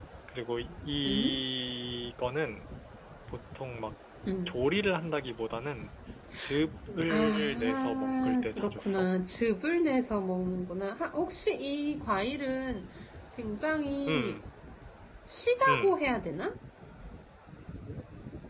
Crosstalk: present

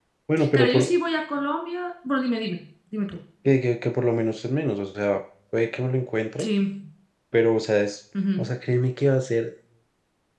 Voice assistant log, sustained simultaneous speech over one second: none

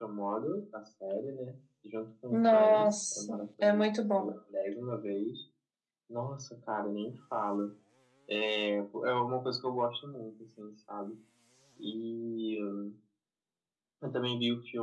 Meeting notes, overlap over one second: present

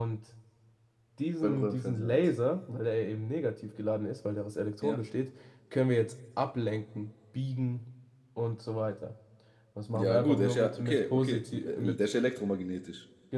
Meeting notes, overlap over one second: present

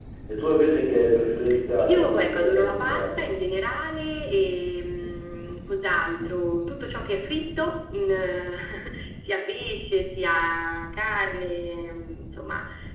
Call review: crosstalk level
present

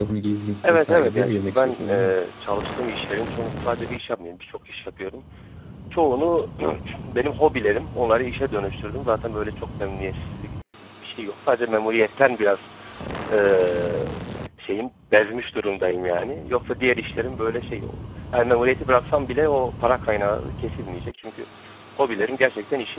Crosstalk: present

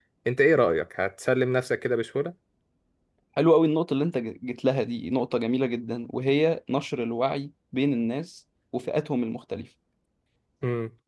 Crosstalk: none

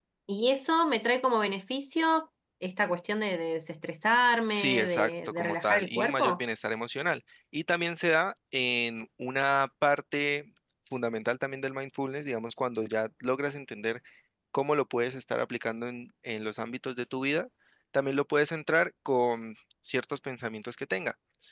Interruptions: present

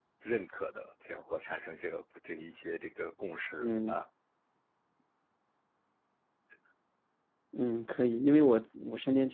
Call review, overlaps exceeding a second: none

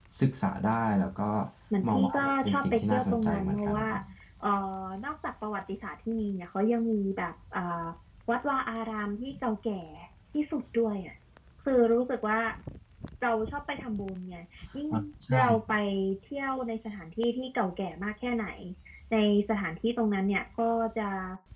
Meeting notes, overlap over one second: present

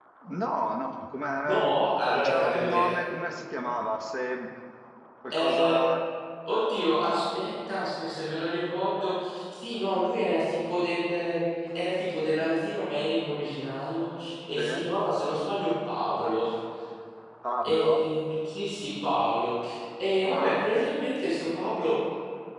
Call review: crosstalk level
present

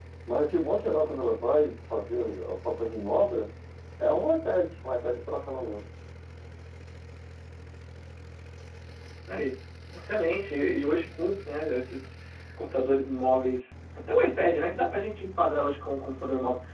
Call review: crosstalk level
none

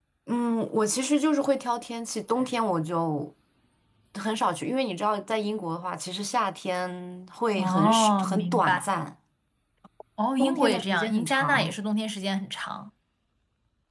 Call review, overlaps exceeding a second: present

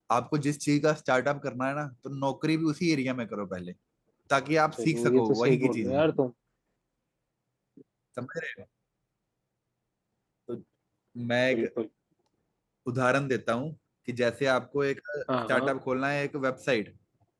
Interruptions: present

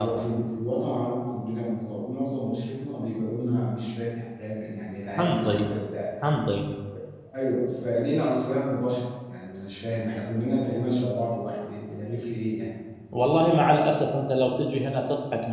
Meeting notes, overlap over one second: none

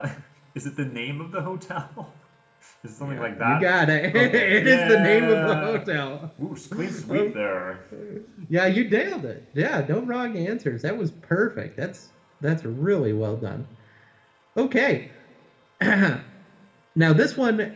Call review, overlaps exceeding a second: present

